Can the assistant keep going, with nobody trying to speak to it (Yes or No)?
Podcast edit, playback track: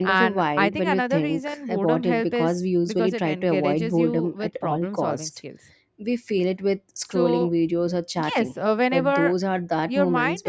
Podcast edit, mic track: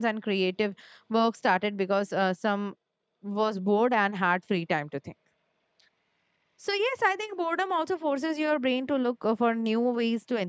No